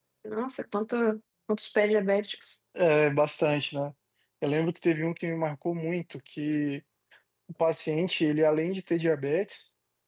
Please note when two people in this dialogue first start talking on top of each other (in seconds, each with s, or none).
none